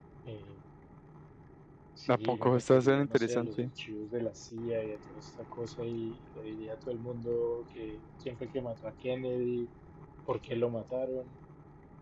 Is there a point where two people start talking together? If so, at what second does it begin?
2.1 s

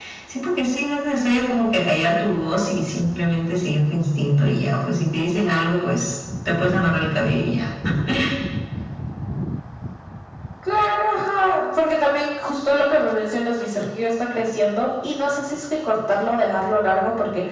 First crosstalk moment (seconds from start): none

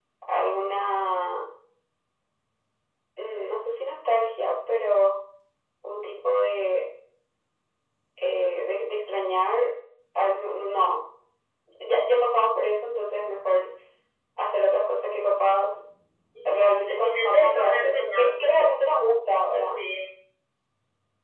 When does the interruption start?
16.4 s

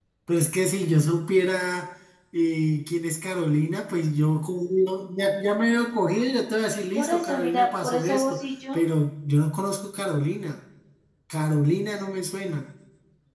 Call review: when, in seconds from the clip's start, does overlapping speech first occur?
7.0 s

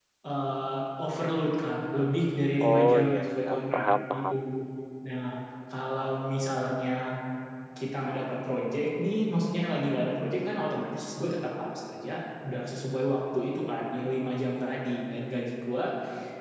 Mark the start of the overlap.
2.6 s

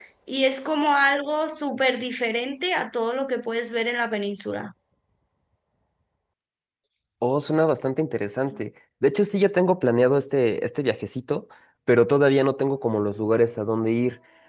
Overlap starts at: none

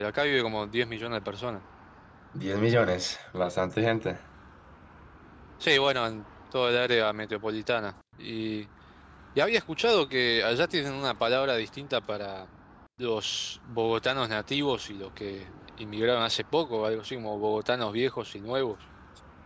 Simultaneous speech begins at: none

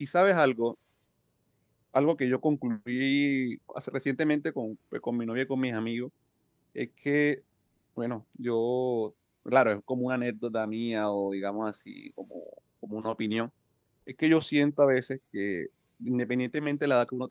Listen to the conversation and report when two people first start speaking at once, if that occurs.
none

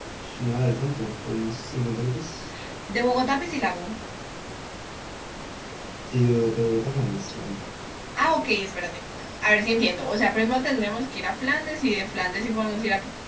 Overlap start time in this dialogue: none

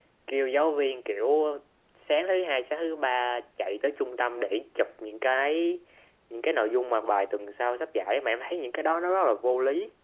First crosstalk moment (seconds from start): none

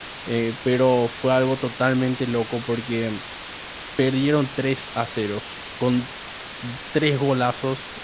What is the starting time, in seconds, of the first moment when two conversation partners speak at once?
none

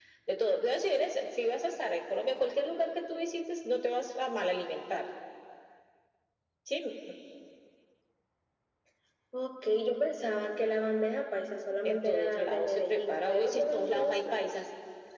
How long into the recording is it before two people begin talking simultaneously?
11.8 s

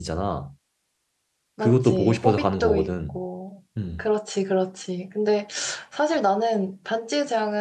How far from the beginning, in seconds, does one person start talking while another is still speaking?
1.6 s

